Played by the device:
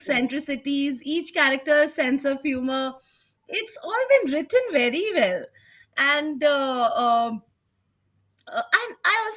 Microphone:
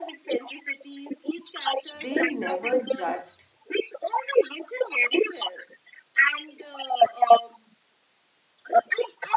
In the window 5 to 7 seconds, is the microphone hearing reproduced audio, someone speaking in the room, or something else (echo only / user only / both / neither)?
echo only